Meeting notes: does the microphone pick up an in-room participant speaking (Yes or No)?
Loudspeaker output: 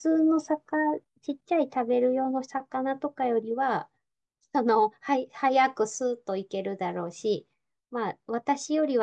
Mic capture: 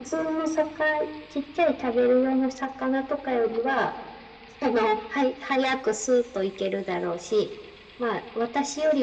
No